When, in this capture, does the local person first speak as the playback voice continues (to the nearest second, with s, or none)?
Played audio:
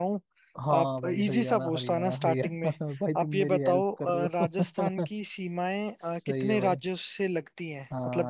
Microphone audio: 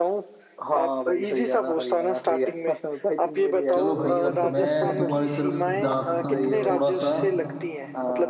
4 s